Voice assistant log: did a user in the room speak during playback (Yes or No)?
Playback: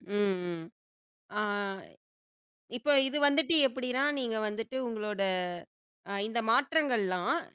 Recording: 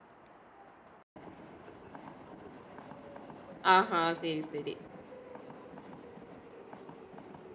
Yes